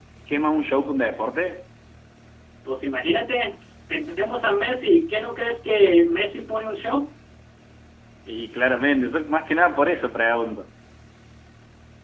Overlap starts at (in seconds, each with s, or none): none